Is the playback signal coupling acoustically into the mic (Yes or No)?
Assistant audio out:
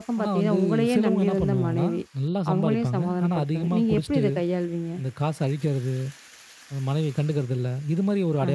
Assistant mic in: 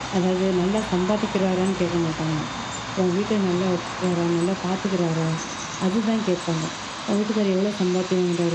No